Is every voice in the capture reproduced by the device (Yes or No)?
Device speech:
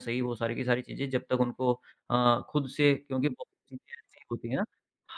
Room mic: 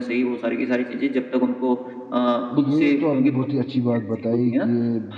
No